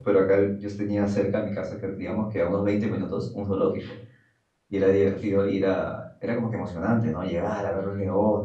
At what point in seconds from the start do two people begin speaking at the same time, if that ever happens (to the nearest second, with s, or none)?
none